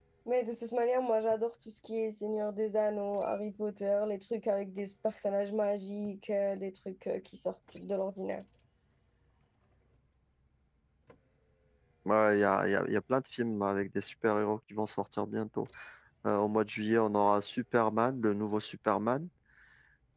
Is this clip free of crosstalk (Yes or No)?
Yes